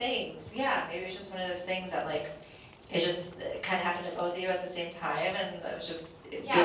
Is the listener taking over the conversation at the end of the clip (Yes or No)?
Yes